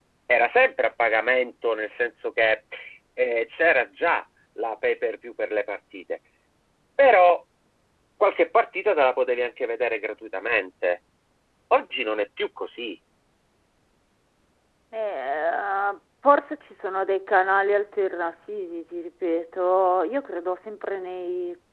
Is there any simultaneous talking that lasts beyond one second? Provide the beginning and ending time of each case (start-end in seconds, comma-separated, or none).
none